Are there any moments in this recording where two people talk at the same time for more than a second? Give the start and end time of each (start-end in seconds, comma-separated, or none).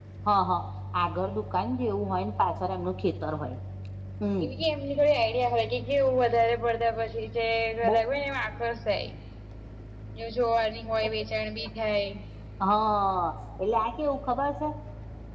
none